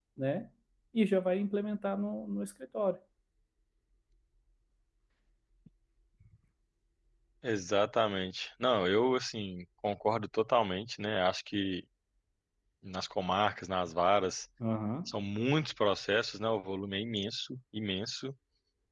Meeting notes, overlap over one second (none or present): none